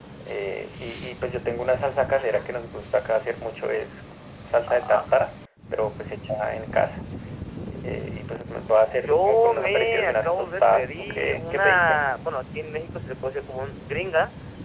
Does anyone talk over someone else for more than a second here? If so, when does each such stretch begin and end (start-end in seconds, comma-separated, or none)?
9.0-12.0